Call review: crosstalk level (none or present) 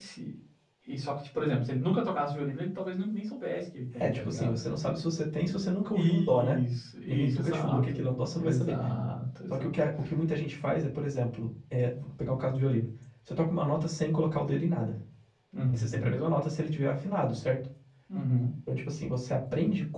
present